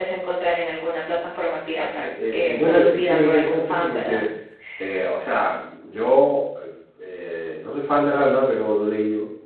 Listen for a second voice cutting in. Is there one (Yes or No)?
Yes